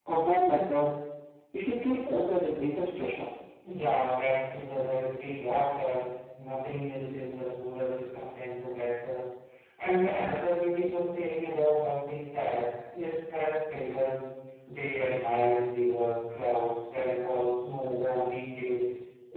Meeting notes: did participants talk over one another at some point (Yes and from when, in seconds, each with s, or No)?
No